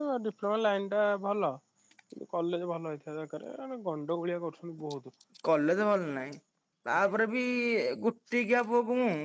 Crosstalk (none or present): none